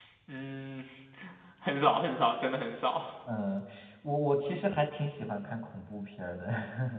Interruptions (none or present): none